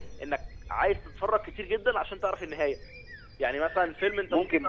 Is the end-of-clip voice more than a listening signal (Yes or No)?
Yes